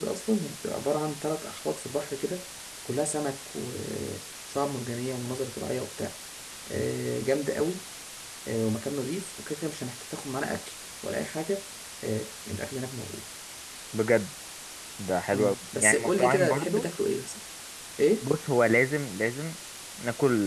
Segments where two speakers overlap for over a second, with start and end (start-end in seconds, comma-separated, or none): 15.3-16.8